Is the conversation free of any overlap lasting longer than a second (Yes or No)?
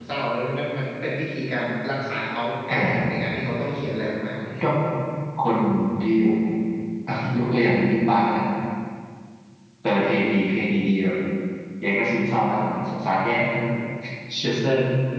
Yes